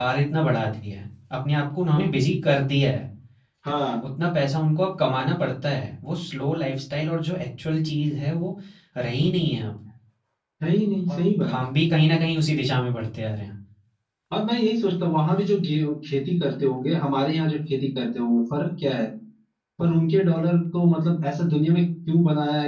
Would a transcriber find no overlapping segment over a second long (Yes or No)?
Yes